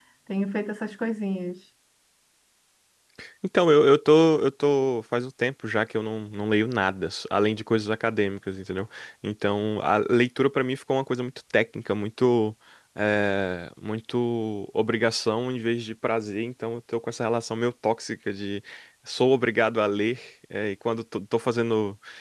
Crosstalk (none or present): none